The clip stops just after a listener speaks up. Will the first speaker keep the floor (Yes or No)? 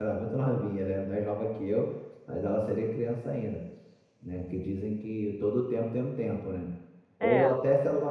Yes